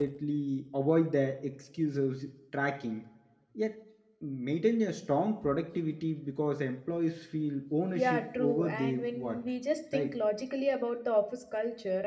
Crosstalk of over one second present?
Yes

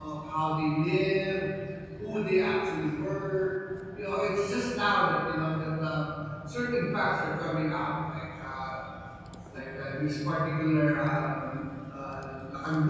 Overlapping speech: No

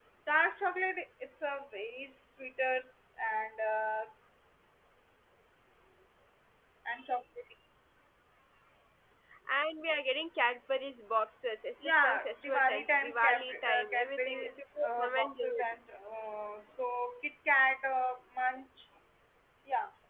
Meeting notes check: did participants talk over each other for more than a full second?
Yes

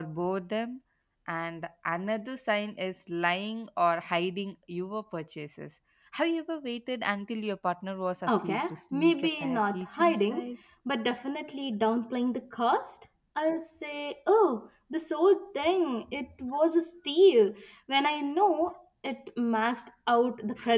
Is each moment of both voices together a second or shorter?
No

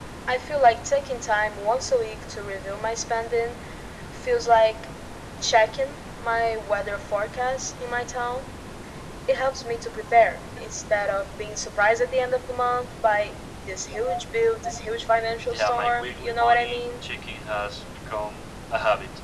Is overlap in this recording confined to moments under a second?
No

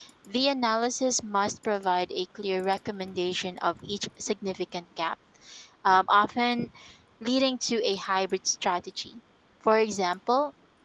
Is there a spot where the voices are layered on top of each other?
No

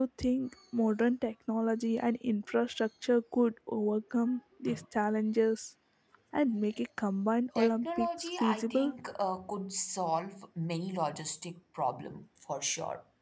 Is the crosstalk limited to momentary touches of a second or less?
No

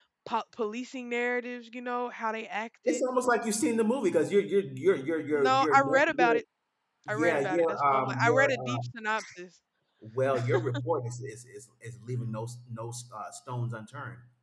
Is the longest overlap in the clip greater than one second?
Yes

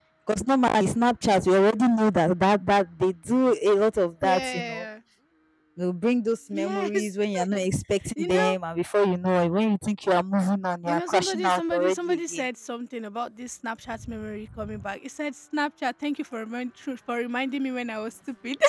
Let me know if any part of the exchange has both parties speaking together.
Yes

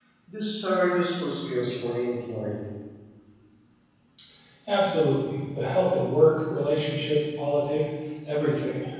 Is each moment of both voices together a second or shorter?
Yes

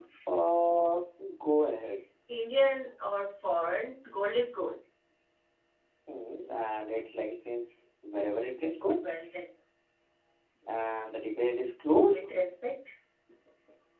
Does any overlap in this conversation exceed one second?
No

